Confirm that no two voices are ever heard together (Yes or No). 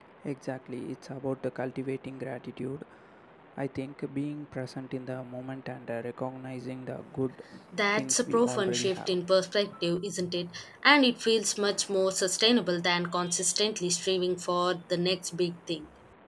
No